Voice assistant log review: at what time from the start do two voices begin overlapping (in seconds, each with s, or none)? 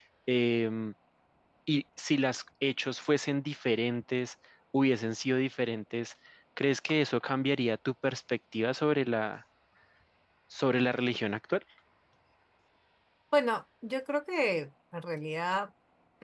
none